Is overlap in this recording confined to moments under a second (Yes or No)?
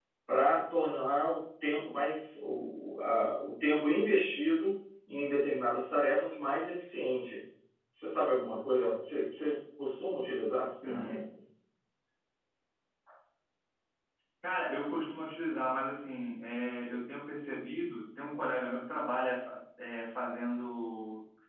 Yes